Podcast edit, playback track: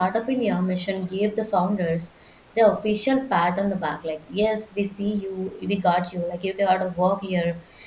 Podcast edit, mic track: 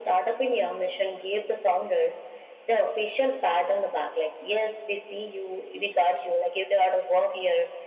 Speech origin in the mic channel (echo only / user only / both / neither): echo only